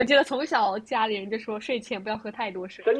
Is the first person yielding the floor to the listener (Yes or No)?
Yes